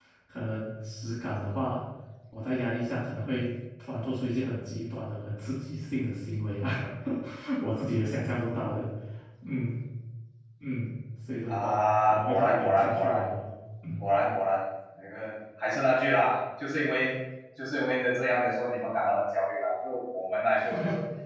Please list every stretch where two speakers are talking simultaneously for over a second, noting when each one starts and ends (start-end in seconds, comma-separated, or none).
11.5-13.2